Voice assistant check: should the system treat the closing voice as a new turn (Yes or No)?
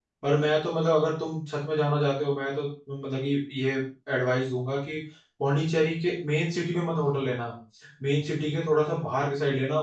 No